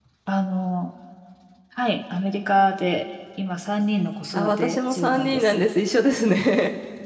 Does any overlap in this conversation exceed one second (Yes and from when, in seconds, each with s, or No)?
Yes, from 4.3 s